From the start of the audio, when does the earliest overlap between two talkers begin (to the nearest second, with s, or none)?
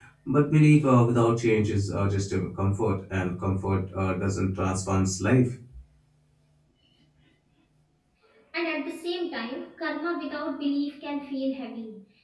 none